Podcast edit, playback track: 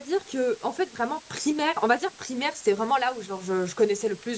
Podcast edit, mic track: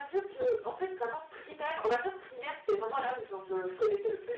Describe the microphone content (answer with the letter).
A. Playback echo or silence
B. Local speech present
A